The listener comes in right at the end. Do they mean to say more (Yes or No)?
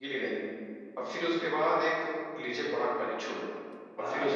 No